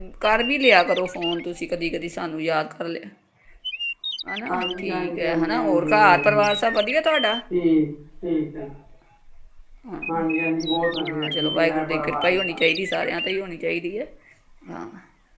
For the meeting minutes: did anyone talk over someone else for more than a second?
Yes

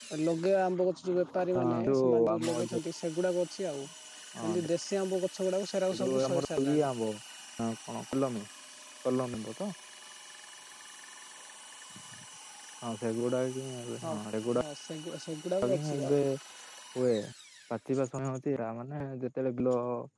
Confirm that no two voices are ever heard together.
No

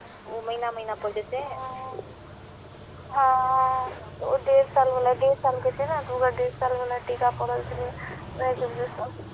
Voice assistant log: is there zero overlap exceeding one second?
Yes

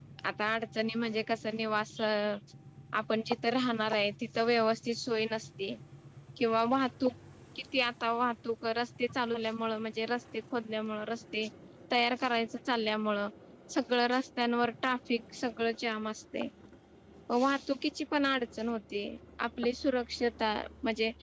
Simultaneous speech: No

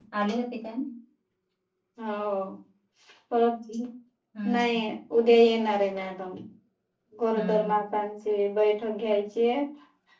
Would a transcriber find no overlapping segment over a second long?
Yes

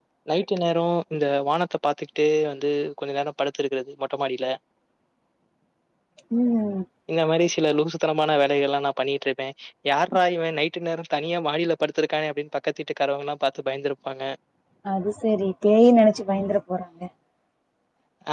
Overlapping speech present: No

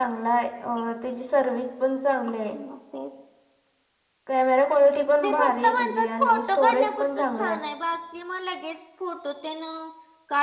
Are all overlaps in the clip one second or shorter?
No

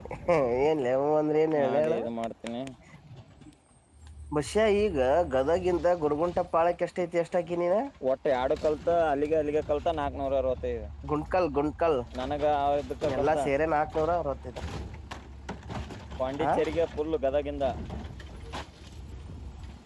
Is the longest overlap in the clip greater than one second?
No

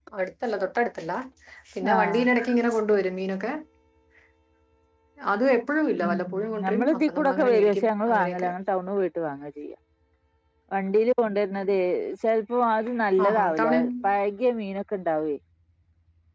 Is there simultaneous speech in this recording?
Yes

